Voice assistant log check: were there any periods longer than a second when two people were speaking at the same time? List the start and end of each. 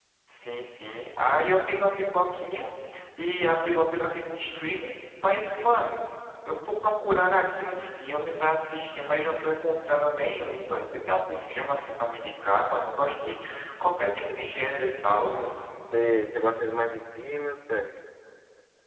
none

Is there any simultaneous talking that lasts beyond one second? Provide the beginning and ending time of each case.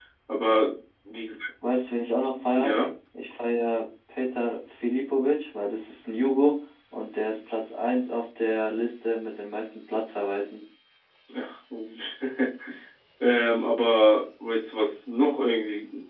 none

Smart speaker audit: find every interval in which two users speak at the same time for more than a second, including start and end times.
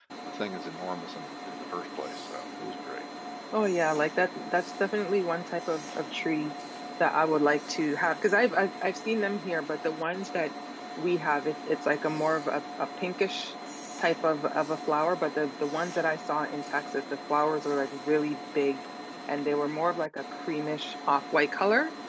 none

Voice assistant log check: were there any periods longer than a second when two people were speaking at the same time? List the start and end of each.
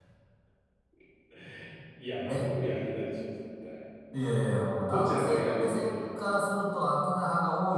4.8-6.2

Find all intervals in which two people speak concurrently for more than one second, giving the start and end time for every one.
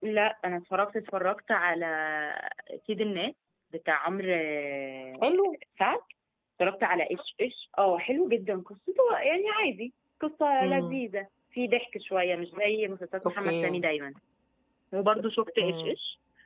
none

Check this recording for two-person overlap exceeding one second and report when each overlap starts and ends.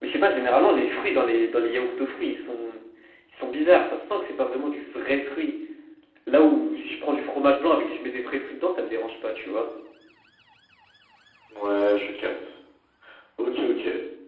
none

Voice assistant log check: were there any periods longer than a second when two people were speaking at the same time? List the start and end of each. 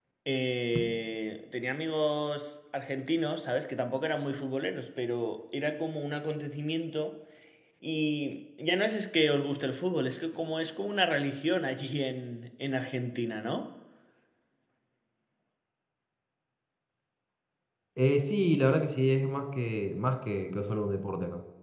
none

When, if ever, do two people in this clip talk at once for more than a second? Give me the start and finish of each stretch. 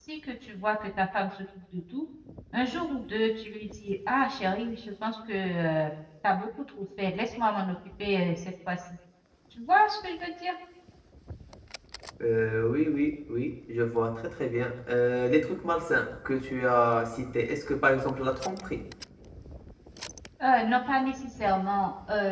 none

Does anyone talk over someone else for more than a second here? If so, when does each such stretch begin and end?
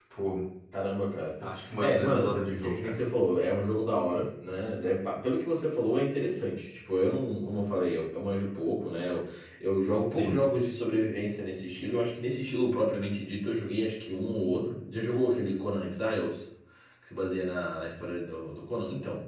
1.8-3.0

